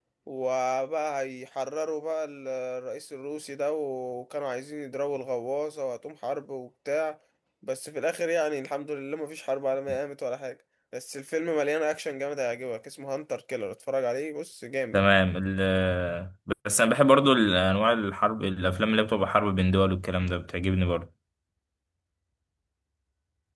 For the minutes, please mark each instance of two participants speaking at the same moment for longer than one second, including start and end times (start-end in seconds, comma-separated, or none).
none